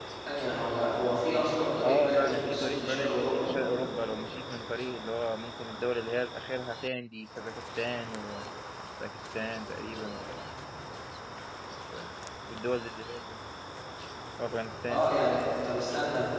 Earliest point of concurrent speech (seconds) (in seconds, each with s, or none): 1.8 s